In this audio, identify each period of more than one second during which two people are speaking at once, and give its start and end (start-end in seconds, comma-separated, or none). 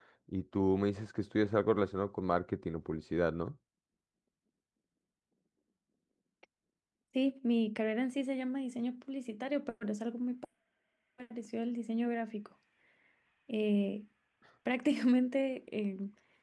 none